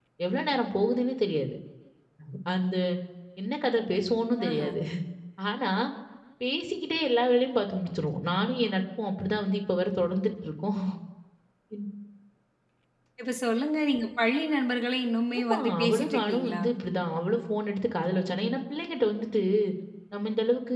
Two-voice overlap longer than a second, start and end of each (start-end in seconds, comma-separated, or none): 15.4-16.6